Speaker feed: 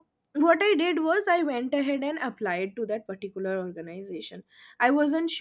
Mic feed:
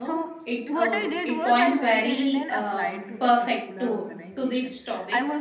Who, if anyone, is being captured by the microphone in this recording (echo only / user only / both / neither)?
both